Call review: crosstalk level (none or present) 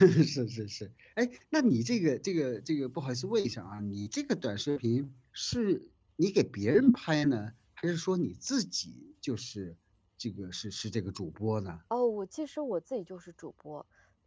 none